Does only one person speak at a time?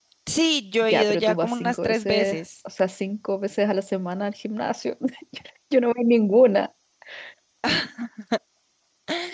No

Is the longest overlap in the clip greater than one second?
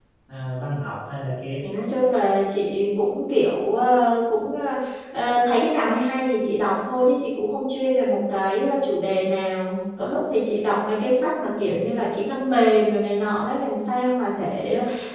No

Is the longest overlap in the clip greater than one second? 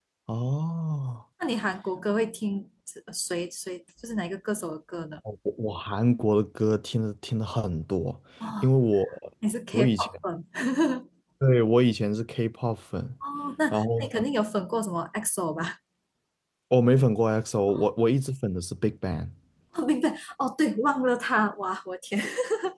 No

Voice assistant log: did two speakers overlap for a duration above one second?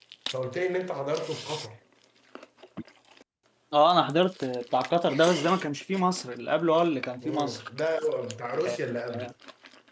No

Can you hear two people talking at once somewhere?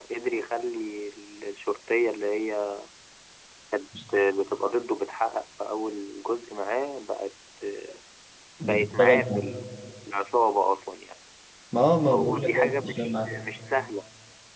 Yes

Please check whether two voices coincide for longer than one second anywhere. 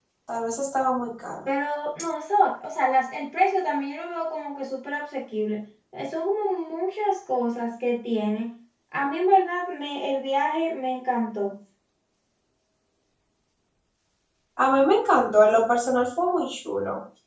No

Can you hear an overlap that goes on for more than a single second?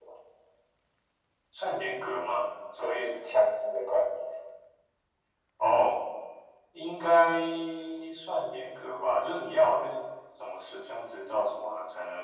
No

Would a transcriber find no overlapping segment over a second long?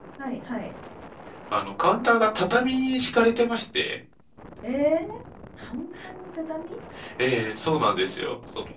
Yes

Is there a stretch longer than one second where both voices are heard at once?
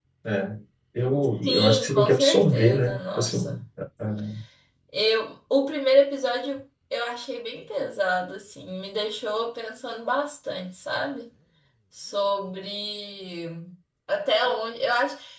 Yes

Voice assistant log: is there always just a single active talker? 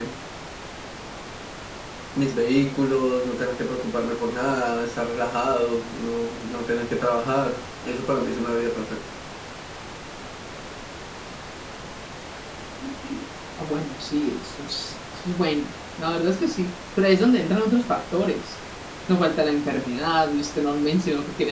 Yes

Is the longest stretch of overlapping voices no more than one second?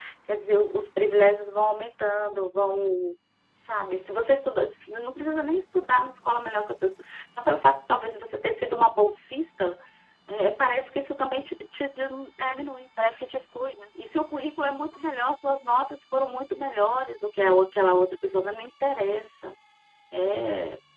Yes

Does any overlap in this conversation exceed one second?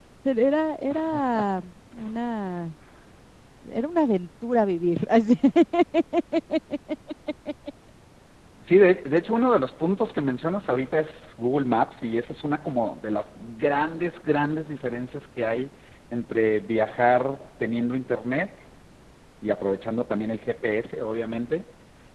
No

